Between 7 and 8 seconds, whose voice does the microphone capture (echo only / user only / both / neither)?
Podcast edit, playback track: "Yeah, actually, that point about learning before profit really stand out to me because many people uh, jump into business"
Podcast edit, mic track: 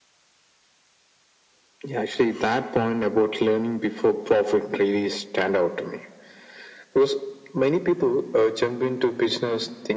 echo only